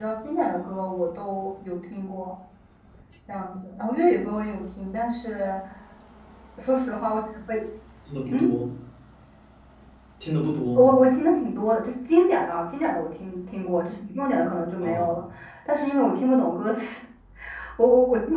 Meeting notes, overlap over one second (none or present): none